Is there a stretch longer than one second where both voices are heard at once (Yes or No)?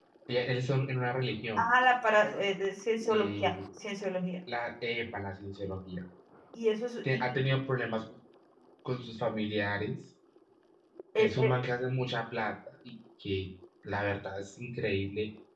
No